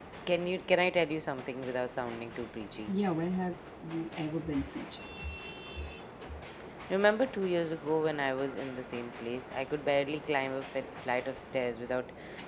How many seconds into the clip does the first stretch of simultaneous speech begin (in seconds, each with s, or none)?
none